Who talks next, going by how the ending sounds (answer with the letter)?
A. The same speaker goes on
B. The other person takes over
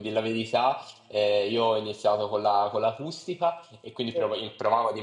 A